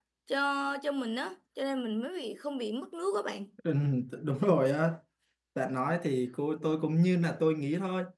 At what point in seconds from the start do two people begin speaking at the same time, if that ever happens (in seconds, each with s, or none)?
none